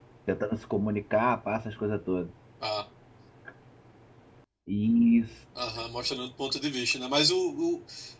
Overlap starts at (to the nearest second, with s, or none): none